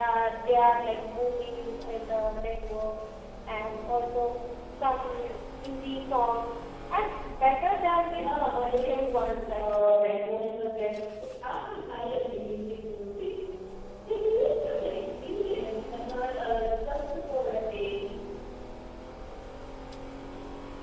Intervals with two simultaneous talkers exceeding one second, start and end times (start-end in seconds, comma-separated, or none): 8.0-10.2